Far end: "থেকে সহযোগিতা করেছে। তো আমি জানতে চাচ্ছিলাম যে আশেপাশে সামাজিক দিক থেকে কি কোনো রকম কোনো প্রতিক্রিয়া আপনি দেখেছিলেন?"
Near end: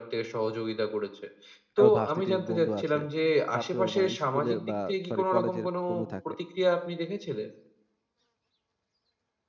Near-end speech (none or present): present